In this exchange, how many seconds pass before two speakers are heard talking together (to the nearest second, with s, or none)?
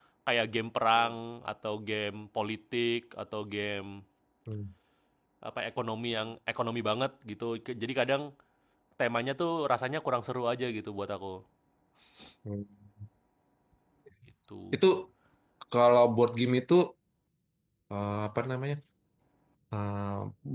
none